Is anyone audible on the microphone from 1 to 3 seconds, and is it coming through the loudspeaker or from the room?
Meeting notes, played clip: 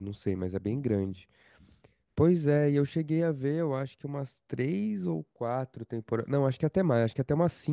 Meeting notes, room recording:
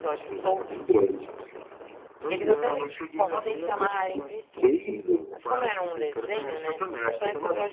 both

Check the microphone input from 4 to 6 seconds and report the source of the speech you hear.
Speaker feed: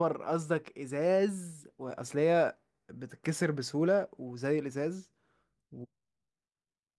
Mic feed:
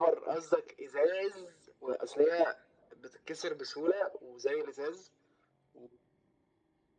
echo only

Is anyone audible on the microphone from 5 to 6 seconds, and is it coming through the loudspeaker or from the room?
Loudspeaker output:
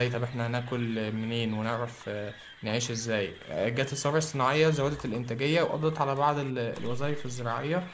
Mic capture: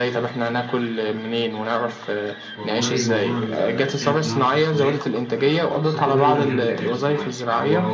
both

